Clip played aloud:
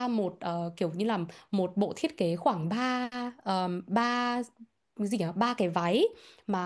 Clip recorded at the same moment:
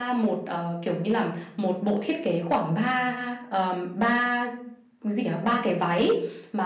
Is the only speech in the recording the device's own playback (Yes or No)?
Yes